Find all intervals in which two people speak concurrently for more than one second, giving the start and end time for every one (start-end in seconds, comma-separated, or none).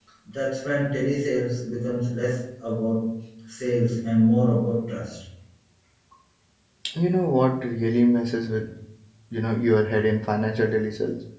none